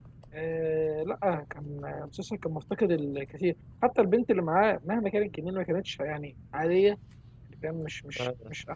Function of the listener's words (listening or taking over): listening